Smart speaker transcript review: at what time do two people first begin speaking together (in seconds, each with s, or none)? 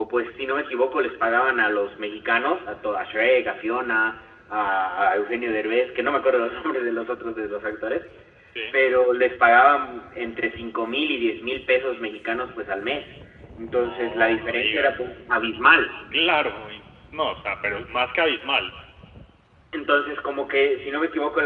13.8 s